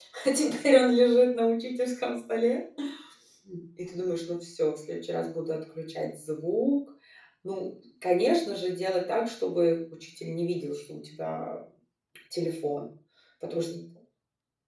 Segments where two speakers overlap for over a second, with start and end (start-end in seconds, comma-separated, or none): none